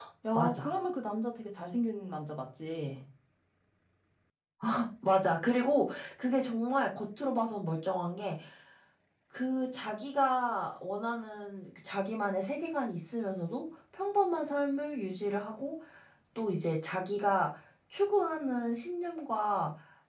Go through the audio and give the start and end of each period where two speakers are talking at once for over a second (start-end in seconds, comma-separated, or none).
none